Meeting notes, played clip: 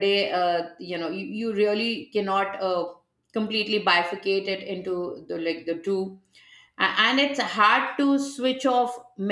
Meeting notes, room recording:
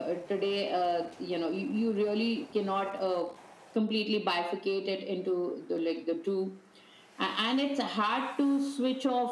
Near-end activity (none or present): none